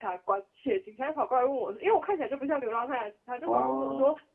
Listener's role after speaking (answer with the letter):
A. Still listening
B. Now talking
A